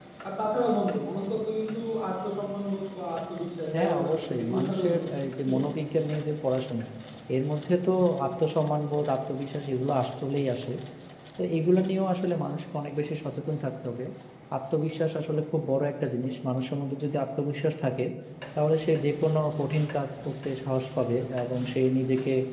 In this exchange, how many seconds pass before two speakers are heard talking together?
3.7 s

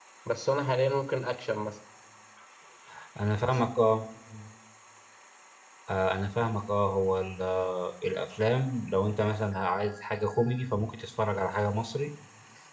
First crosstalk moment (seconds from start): none

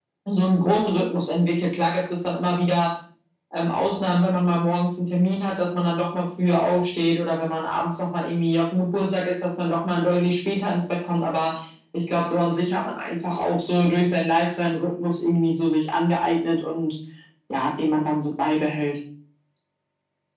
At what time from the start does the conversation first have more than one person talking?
none

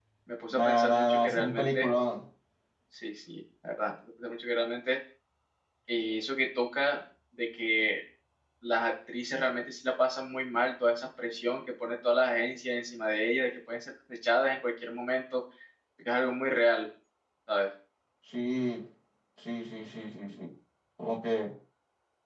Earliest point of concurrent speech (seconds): 0.5 s

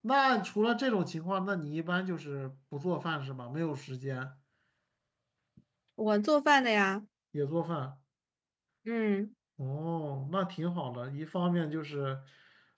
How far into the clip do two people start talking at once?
none

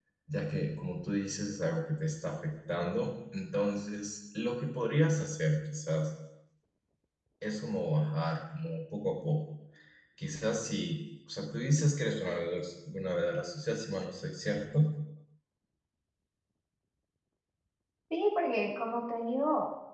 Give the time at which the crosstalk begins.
none

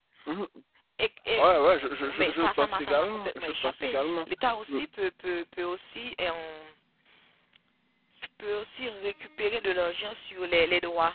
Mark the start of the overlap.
2.1 s

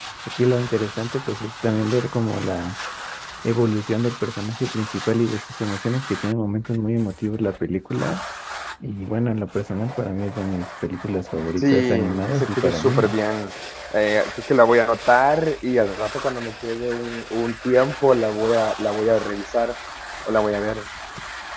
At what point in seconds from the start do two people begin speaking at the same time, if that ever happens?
11.6 s

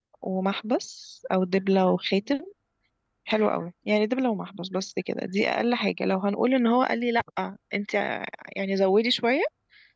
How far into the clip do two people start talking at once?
none

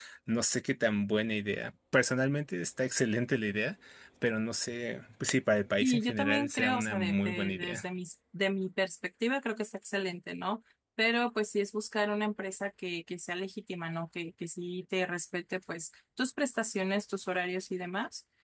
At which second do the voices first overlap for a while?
5.8 s

